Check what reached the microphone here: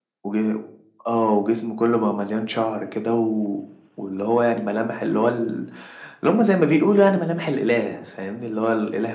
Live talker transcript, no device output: none

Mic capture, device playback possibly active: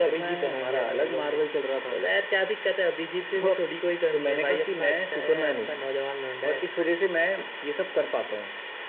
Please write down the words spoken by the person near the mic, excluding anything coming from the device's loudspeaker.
none

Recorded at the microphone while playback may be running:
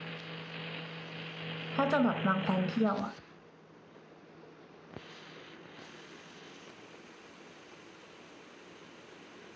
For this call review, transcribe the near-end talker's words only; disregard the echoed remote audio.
ถ้าจะแบบวางแผนเที่ยวอะ

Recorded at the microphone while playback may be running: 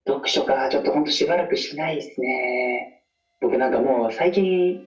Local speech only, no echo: none

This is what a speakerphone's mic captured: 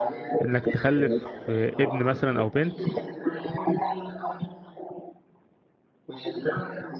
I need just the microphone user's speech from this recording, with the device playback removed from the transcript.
إنك تخلف آه، ابن مثلا أو بنت

